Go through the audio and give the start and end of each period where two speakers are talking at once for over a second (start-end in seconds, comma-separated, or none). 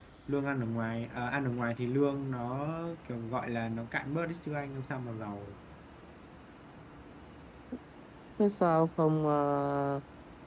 none